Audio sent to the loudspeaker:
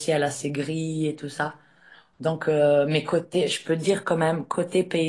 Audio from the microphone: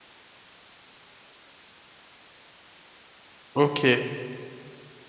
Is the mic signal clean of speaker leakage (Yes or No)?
Yes